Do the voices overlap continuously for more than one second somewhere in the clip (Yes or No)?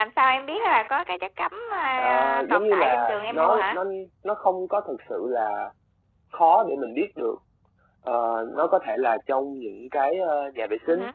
Yes